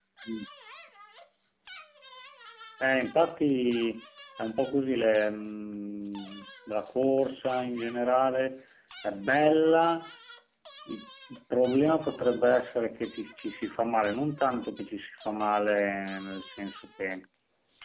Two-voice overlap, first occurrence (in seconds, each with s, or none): none